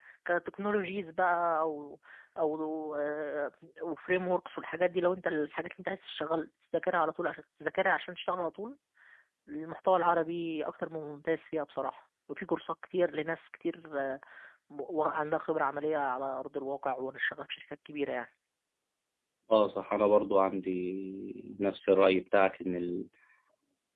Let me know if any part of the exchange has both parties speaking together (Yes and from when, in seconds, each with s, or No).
No